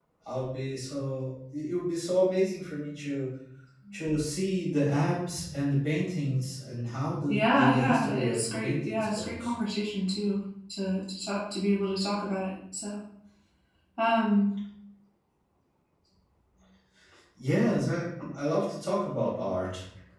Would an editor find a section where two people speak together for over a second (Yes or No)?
Yes